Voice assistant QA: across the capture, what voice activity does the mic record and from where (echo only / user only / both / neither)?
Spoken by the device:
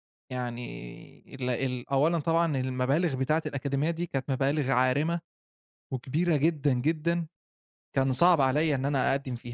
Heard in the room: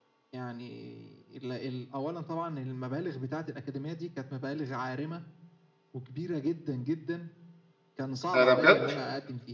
both